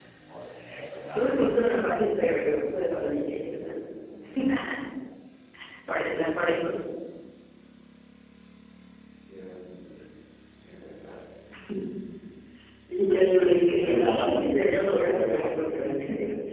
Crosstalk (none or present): present